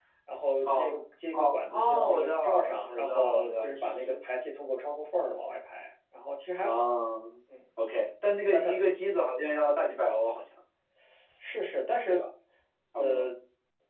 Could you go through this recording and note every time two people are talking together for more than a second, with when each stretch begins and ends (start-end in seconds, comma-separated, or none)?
1.3-4.2